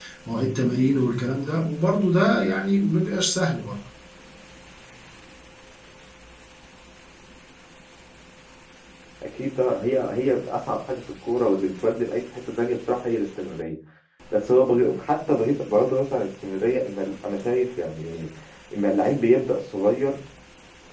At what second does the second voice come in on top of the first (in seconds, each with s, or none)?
none